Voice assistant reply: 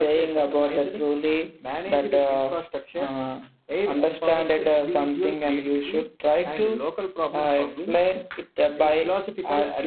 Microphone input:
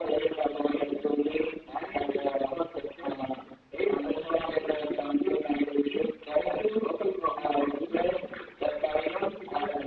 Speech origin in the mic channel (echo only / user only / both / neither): echo only